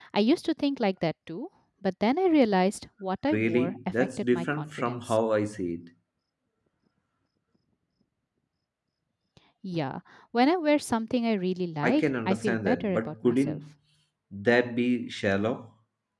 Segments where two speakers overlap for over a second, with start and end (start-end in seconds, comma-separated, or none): 3.3-5.2, 11.8-13.6